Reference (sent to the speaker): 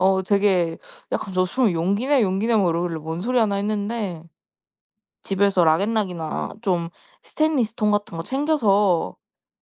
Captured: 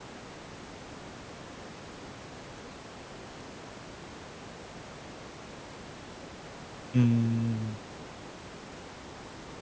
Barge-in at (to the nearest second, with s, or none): 7 s